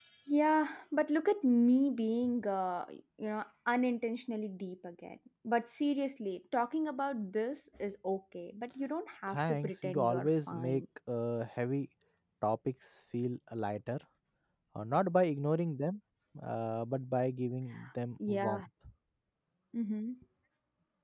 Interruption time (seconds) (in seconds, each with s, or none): 9.3 s